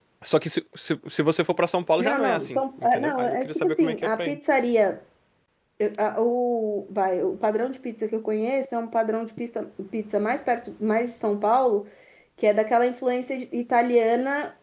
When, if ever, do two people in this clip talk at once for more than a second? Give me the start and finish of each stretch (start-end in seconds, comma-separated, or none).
2.0-4.4